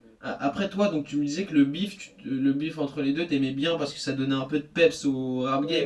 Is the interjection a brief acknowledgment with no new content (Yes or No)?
No